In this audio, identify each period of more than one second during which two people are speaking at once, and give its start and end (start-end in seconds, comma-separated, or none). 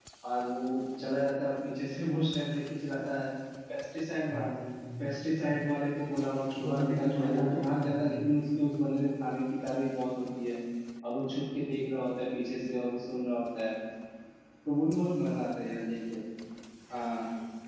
6.6-8.3